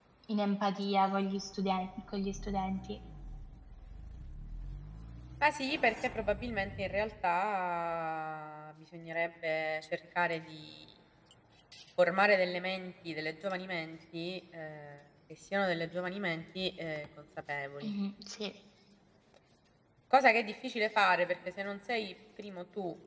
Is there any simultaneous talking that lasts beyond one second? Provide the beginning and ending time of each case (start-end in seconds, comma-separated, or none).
none